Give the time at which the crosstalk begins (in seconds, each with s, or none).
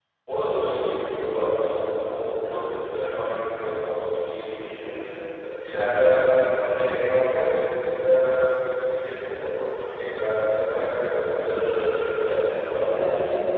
11.3 s